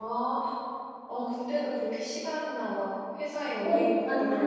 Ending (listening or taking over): taking over